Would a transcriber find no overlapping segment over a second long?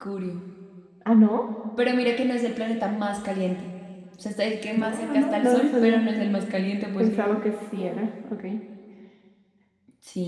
No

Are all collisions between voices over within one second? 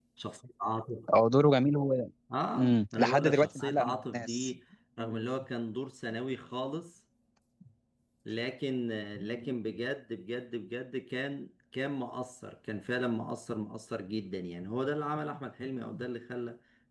No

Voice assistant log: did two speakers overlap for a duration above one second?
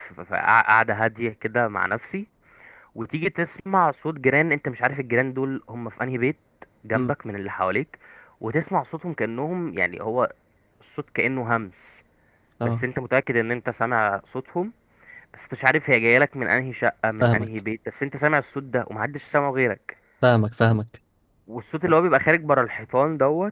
No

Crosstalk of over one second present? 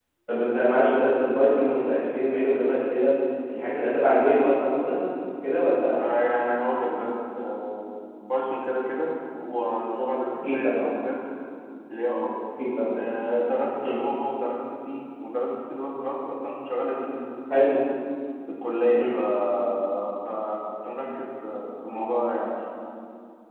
No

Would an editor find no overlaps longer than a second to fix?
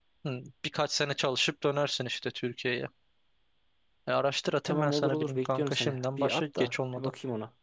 No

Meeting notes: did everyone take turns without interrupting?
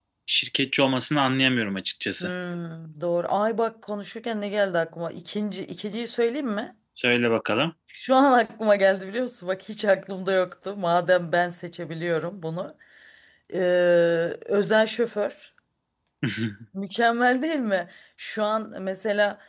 Yes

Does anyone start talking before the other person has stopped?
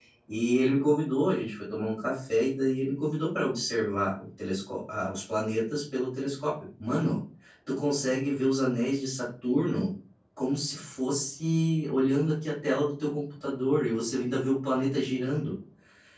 No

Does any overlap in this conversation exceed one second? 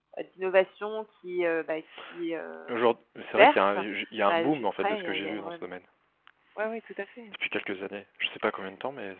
Yes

